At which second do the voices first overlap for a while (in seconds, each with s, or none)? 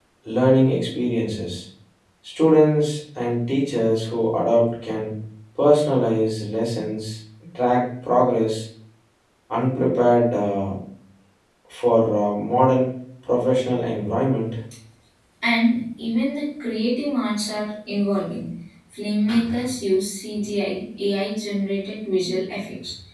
none